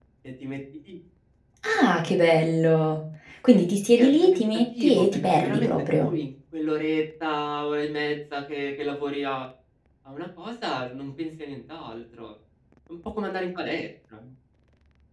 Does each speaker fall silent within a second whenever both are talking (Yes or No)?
No